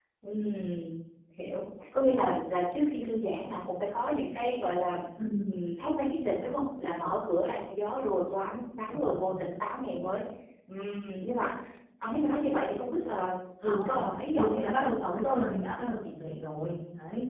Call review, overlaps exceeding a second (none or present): none